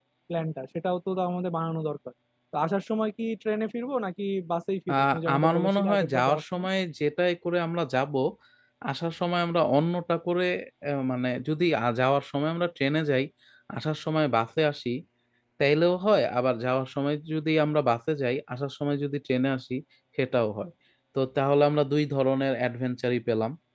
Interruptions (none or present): present